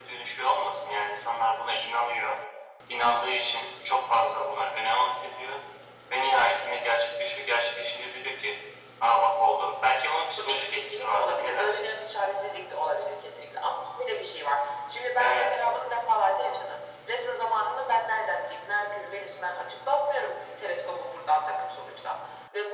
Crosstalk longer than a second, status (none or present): present